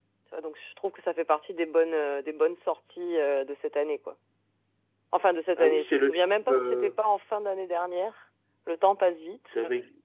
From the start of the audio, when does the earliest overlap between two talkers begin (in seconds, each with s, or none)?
5.6 s